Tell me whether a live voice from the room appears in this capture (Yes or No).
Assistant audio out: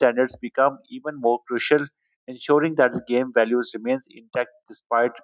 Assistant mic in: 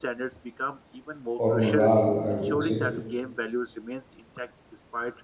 Yes